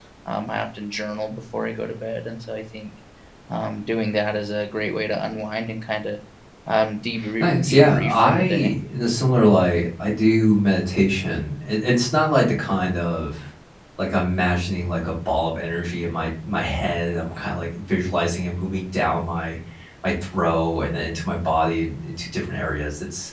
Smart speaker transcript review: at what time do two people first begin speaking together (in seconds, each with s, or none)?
7.4 s